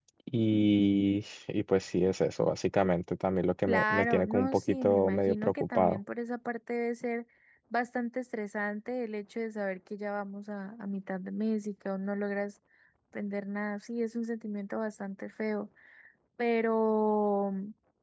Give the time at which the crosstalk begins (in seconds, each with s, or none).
3.7 s